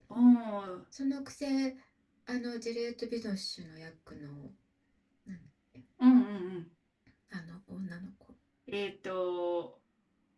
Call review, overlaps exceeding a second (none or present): none